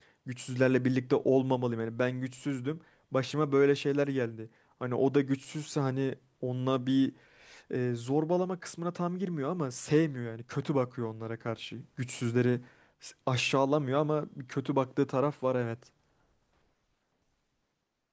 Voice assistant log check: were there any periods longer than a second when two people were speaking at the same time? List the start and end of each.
none

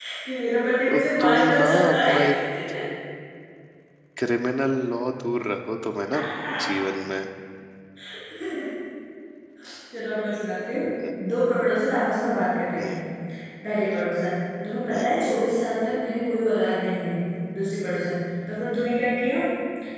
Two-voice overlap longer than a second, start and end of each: 0.9-2.1

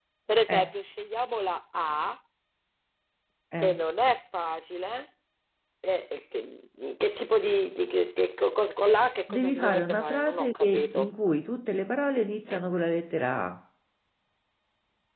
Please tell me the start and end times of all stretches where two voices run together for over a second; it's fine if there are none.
9.3-11.1

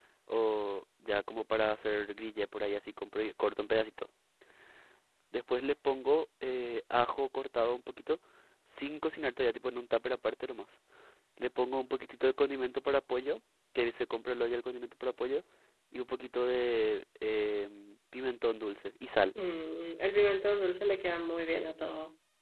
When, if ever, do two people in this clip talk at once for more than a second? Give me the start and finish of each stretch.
none

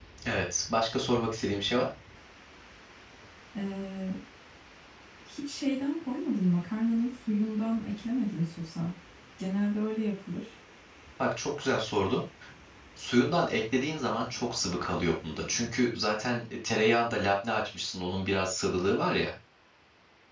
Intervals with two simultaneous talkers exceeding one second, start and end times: none

